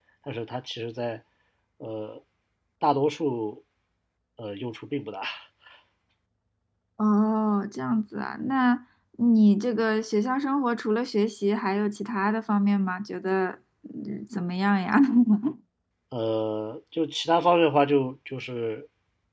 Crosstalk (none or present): none